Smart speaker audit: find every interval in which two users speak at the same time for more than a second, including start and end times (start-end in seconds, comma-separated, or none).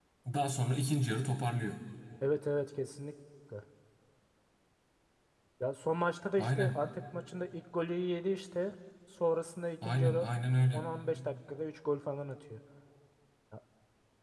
none